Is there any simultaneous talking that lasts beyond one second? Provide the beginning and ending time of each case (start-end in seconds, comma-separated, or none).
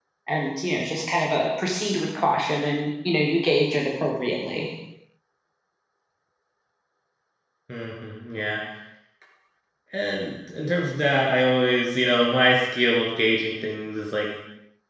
none